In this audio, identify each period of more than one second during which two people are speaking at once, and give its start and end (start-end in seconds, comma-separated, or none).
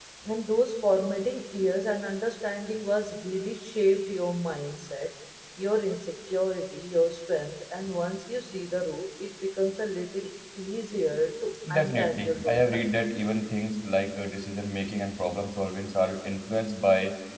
11.7-13.0